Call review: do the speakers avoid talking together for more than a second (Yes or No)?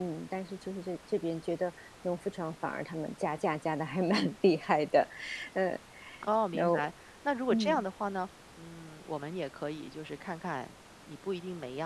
Yes